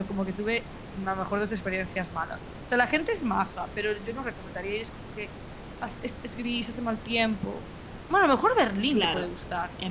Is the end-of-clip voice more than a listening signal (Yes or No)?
Yes